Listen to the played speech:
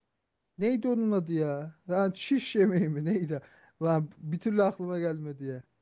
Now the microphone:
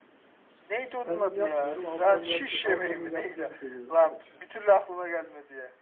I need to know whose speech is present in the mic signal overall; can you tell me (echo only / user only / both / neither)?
both